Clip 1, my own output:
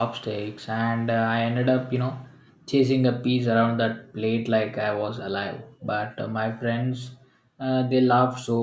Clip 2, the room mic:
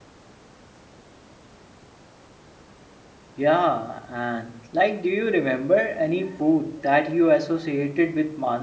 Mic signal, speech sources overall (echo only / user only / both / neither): user only